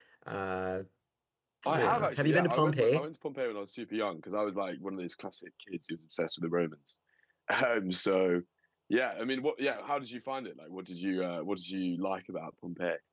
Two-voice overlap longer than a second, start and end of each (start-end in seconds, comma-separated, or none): 1.7-3.1